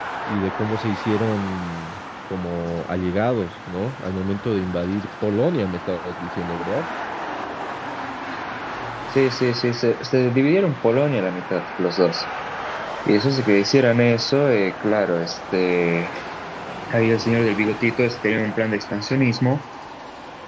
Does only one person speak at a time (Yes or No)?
Yes